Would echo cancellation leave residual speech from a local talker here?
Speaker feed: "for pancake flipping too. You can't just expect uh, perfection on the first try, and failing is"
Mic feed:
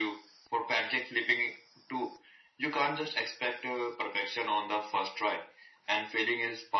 No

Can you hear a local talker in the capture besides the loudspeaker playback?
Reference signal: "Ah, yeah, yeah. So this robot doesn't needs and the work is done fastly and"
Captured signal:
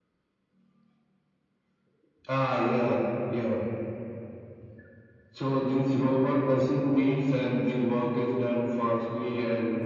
No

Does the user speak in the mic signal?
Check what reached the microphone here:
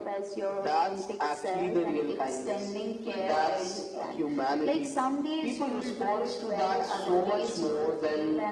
No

